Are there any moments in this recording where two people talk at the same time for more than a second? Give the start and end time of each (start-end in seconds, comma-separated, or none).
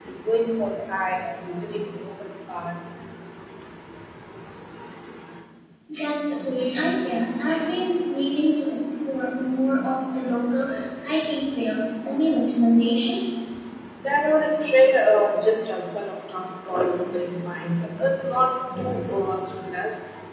none